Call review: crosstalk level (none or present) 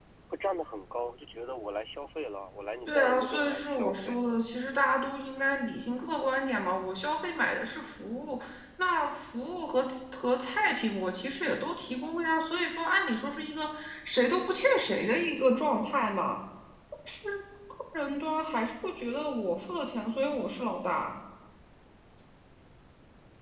present